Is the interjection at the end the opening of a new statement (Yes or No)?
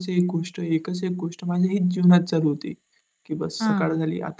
No